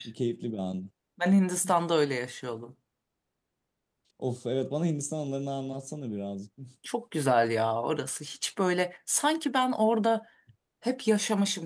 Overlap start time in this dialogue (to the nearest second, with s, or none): none